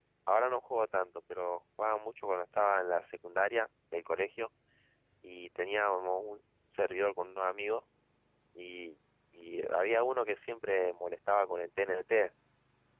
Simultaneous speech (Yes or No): No